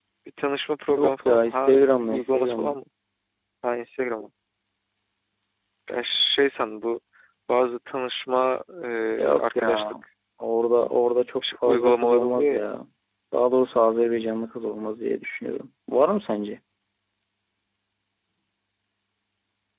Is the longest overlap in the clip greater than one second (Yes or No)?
Yes